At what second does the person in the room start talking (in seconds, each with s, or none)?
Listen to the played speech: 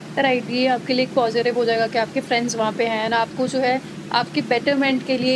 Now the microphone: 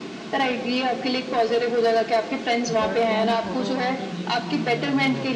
2.7 s